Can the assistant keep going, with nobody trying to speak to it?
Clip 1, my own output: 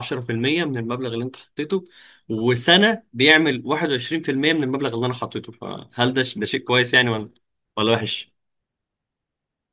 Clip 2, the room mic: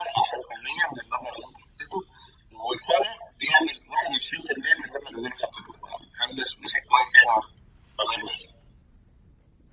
Yes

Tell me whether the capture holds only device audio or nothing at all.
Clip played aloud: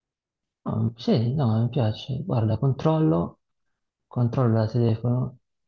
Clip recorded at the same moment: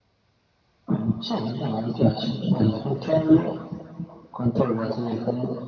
Yes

